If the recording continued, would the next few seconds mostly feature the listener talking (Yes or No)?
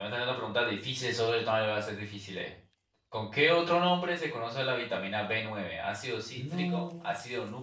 No